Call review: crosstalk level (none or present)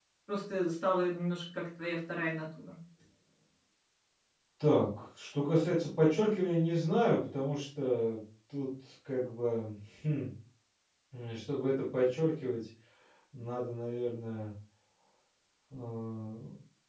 none